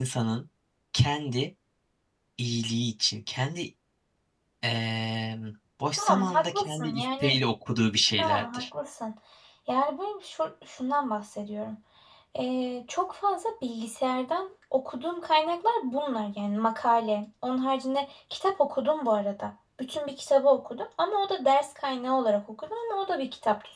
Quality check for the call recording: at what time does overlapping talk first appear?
5.9 s

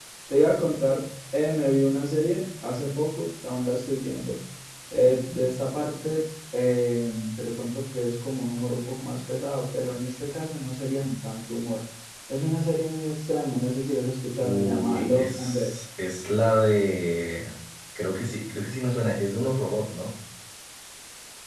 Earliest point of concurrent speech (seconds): 14.4 s

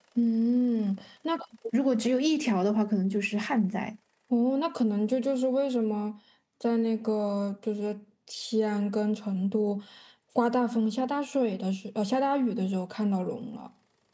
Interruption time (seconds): none

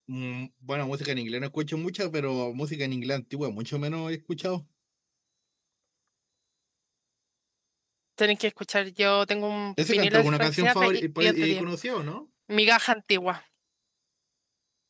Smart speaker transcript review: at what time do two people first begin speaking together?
9.8 s

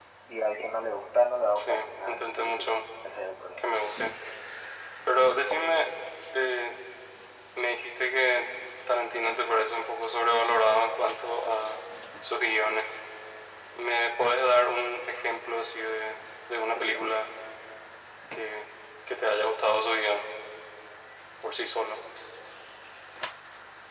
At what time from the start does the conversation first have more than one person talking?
1.6 s

